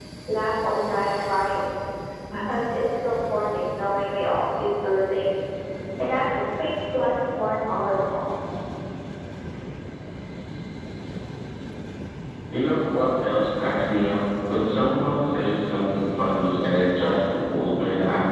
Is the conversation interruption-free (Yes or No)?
Yes